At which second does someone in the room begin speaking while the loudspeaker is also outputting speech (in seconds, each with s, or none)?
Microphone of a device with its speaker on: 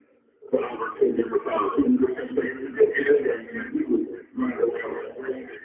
none